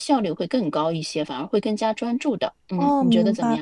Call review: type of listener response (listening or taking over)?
taking over